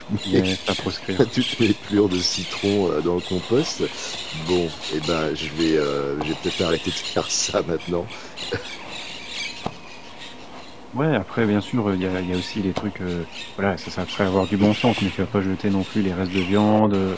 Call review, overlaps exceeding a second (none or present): none